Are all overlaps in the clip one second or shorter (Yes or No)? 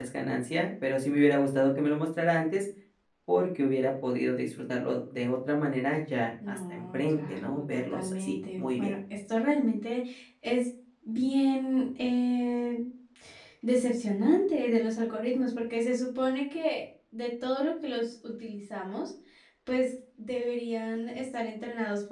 No